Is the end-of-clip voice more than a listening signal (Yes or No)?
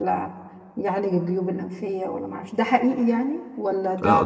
Yes